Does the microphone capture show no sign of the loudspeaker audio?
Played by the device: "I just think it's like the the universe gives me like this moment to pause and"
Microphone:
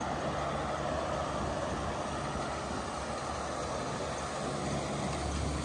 Yes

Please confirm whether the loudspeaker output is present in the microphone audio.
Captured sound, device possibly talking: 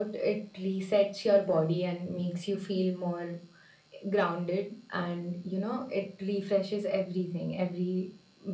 Yes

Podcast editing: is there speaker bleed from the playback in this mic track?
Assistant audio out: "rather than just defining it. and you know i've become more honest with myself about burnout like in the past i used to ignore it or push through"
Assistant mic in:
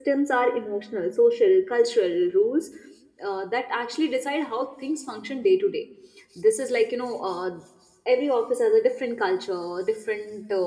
No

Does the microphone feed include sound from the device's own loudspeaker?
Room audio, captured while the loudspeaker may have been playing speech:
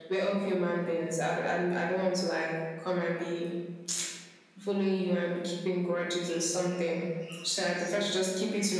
Yes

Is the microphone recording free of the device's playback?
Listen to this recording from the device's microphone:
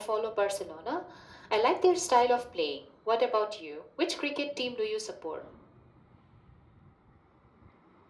No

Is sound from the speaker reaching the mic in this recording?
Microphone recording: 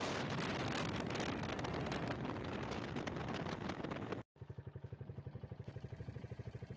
No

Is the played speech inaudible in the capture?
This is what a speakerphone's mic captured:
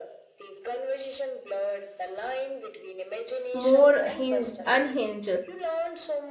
No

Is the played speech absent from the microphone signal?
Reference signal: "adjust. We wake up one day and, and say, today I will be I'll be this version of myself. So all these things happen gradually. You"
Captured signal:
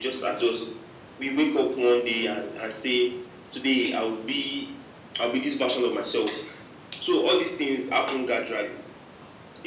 No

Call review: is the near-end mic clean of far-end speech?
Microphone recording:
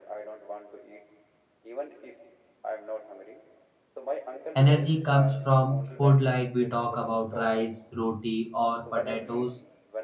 No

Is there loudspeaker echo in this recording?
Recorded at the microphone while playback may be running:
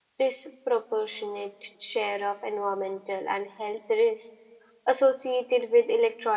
No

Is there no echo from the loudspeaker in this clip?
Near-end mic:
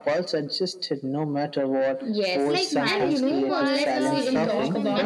No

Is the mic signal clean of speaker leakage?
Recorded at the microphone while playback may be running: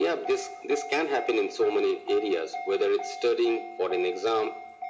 No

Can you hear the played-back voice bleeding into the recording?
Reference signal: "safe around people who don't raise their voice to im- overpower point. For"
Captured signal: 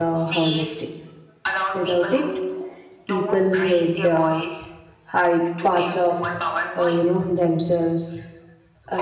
Yes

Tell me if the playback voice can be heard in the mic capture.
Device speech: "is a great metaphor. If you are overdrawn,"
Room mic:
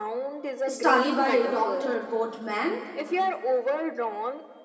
Yes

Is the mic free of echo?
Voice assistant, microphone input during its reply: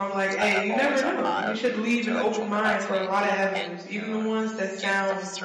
No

